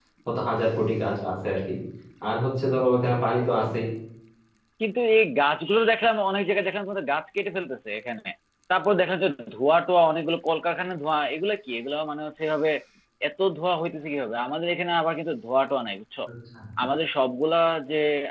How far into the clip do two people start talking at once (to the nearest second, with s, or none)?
none